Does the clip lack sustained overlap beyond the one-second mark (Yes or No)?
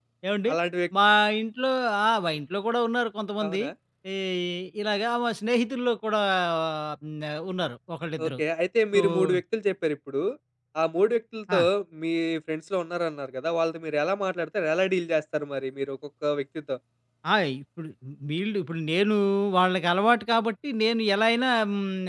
Yes